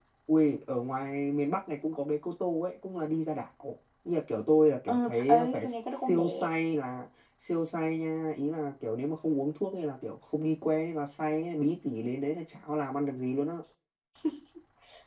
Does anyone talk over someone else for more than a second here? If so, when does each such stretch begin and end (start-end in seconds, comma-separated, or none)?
4.9-6.5